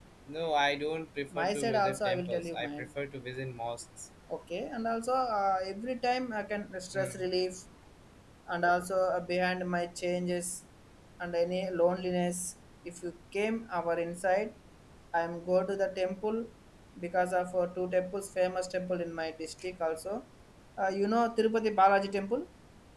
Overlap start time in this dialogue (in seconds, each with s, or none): 1.3 s